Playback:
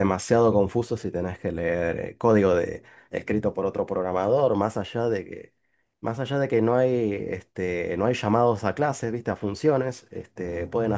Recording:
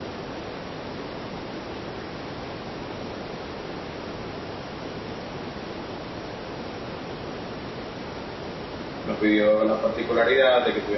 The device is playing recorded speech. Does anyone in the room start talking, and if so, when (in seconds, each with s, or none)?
9.0 s